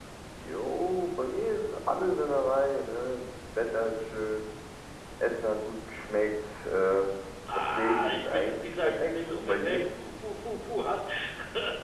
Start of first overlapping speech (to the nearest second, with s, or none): 8 s